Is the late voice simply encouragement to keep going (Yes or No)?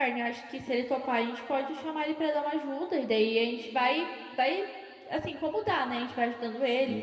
No